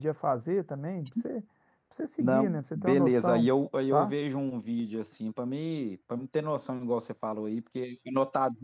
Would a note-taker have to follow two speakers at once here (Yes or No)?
Yes